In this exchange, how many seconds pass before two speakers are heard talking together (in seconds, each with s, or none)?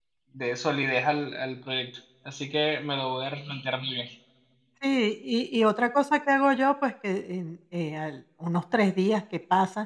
none